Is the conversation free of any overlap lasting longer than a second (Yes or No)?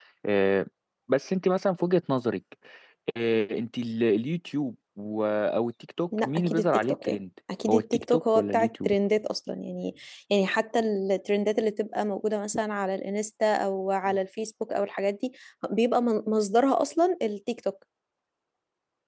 No